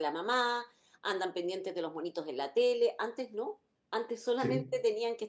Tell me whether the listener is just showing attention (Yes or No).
Yes